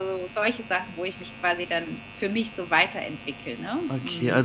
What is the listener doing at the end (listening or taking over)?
taking over